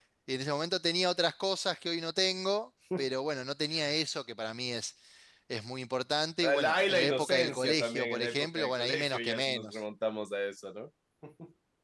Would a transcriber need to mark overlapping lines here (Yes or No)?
Yes